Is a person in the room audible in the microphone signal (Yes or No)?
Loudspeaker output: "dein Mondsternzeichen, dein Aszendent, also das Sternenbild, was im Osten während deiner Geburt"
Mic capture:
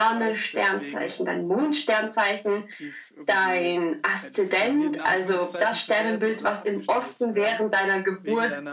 Yes